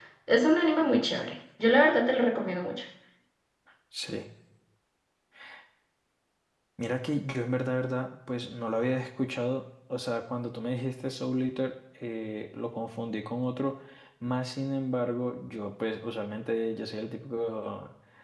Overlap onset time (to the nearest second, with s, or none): none